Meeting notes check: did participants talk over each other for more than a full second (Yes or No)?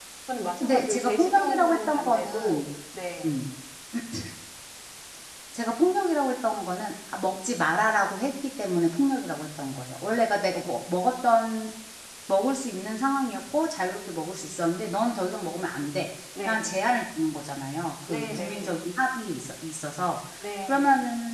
Yes